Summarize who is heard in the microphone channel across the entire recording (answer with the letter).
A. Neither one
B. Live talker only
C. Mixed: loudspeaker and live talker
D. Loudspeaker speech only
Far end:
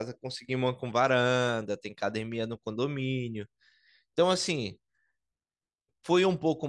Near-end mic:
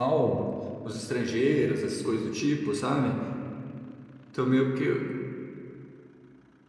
B